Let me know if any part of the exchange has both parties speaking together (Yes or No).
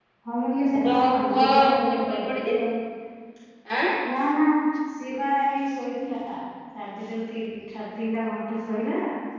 Yes